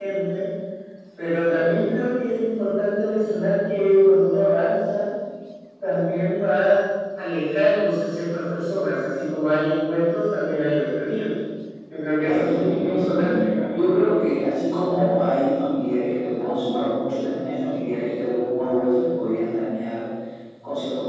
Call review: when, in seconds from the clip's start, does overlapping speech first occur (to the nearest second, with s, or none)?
12 s